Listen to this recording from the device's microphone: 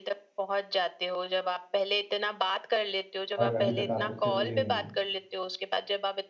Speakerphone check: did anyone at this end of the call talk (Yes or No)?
Yes